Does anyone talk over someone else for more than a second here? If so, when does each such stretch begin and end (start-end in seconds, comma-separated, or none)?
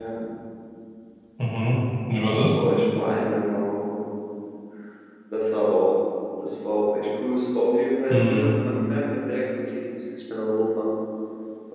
none